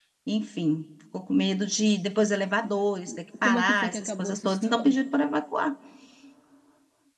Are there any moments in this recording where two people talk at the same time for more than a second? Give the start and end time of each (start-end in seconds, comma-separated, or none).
3.4-5.0